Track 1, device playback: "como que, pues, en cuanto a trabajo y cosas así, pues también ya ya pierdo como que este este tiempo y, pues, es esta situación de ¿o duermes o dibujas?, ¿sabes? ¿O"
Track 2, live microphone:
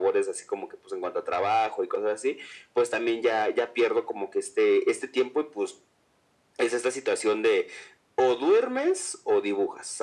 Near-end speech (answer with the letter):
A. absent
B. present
A